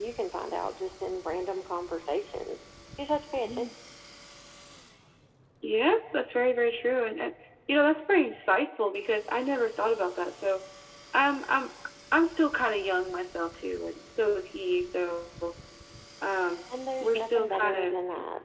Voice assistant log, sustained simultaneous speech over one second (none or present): present